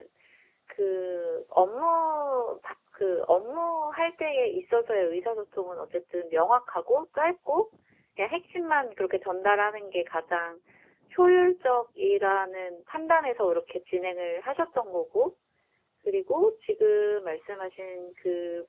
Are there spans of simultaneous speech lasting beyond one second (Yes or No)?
No